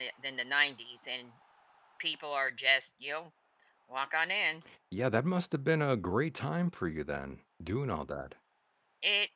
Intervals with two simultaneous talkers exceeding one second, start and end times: none

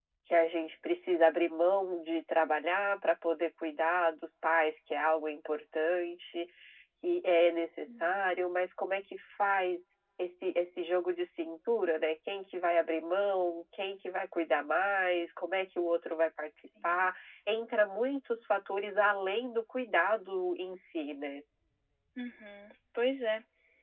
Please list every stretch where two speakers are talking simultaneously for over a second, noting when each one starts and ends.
none

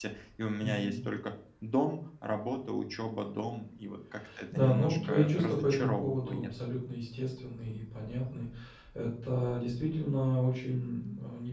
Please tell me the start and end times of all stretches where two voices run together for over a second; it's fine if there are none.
4.5-6.5

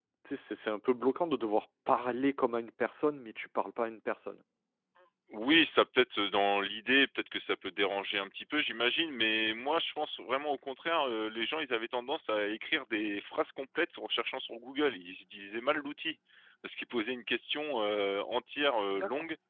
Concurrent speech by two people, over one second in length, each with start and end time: none

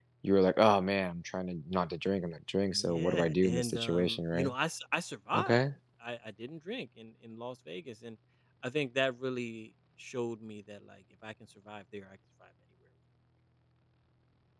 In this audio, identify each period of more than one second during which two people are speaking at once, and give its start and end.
2.7-4.5

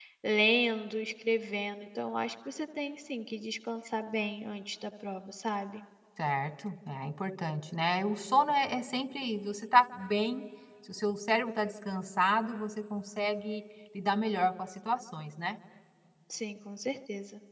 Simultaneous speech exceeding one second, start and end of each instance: none

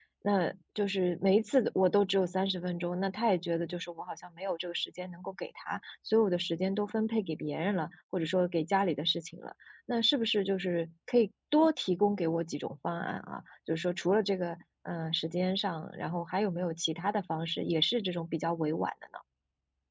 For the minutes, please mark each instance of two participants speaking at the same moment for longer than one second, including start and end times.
none

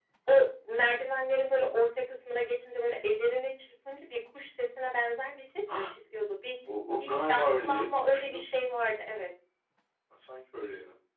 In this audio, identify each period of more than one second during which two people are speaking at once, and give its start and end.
7.0-8.4

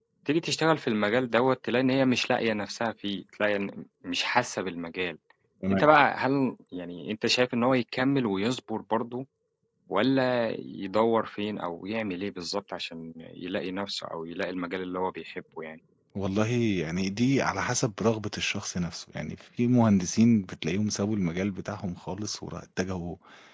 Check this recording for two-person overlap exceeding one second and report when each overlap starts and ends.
none

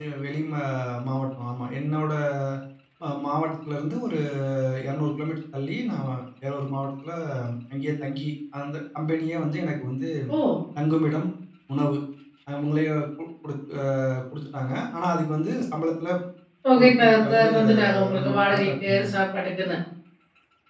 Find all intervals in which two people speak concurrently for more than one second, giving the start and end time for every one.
16.8-19.1

